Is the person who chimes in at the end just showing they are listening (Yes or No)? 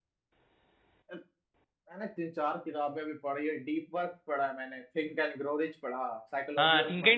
No